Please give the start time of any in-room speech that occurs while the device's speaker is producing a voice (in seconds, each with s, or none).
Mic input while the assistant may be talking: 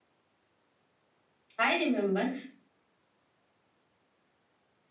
1.6 s